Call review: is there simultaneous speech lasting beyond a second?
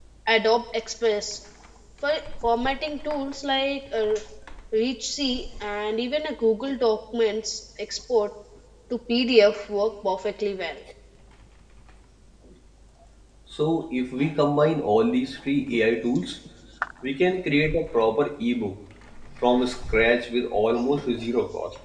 No

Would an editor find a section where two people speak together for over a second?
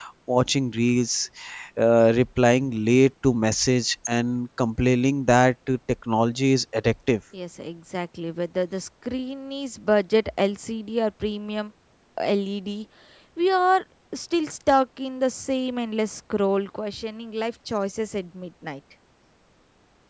No

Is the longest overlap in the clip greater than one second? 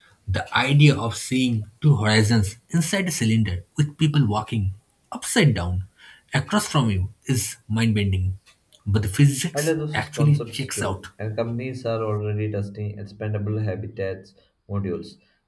Yes, from 9.5 s

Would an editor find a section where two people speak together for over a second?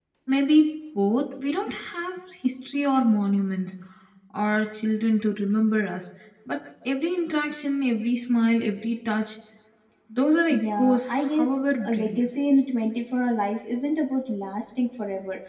Yes, from 10.6 s

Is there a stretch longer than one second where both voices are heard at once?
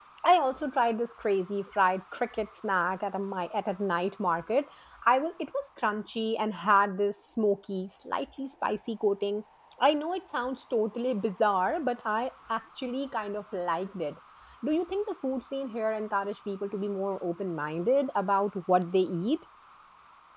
No

